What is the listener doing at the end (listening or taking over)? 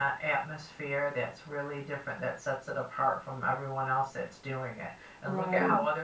listening